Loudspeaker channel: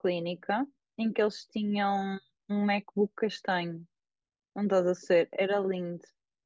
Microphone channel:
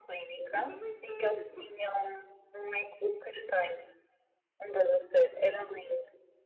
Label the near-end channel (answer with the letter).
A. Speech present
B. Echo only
A